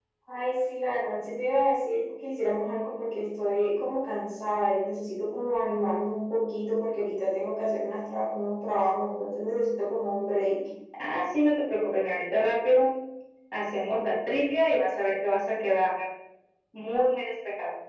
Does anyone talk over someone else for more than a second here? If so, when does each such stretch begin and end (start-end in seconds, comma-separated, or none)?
none